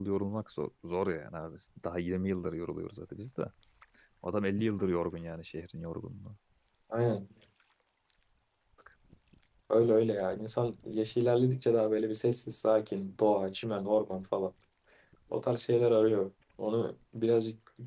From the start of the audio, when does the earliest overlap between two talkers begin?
none

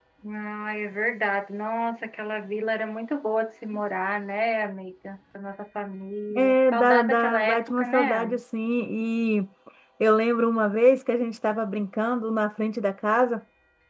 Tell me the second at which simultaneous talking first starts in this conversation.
6.3 s

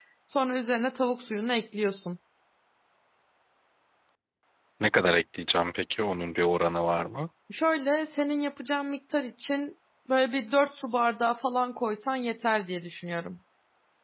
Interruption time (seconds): none

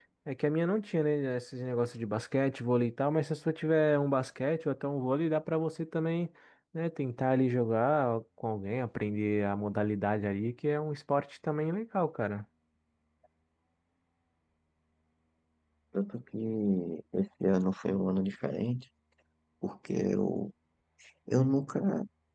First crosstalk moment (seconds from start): none

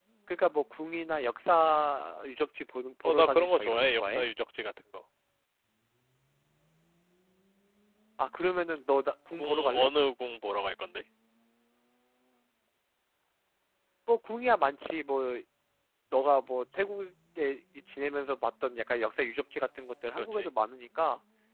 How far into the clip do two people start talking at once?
3.0 s

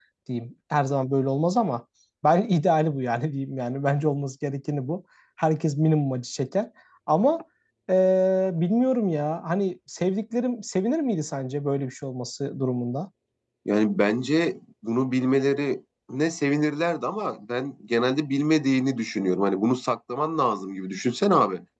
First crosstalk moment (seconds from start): none

